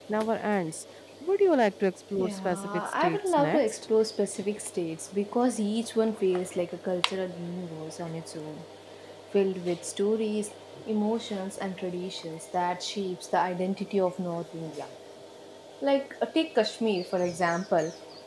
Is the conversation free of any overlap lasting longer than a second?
No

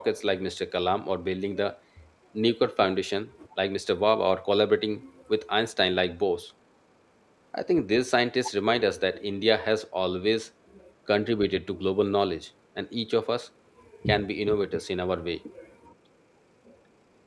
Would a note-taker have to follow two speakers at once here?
No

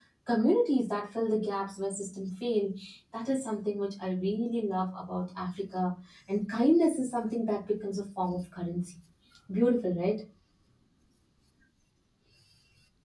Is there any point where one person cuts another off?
No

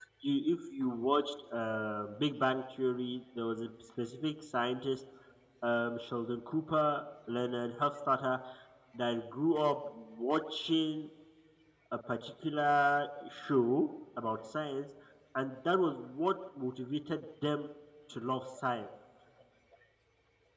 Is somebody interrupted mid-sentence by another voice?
No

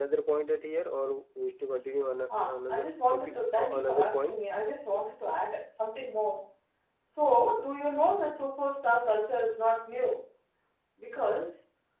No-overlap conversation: No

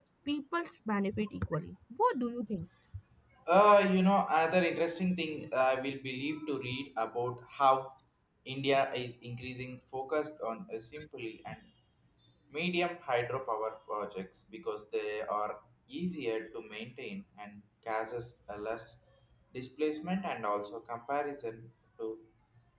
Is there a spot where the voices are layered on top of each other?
No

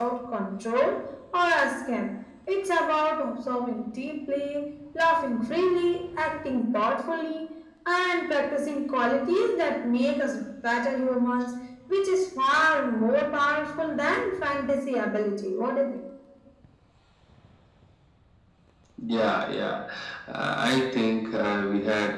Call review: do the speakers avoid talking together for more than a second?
Yes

